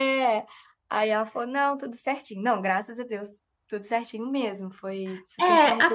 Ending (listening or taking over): taking over